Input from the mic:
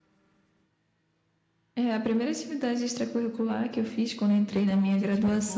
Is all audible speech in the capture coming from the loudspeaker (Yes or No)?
No